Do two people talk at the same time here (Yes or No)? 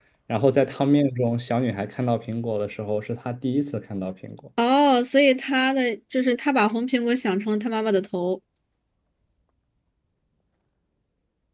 No